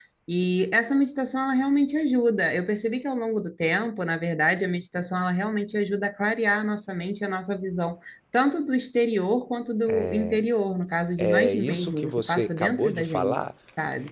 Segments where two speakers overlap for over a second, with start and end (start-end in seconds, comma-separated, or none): 11.2-13.4